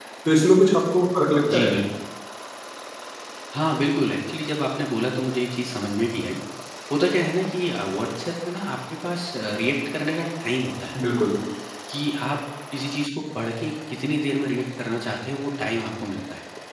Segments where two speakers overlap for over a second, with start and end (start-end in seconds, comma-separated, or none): none